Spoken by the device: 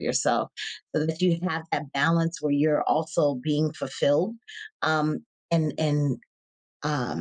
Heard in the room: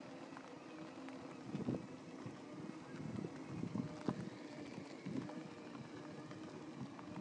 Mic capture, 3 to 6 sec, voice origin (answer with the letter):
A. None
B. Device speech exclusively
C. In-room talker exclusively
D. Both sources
A